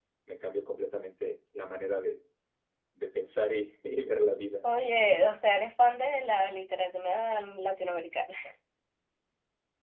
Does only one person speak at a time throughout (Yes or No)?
Yes